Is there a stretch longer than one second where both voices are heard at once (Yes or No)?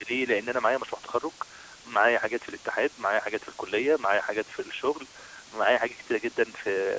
No